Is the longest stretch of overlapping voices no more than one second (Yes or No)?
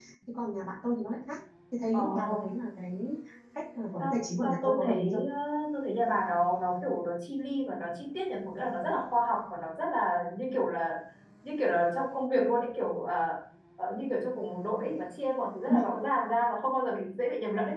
No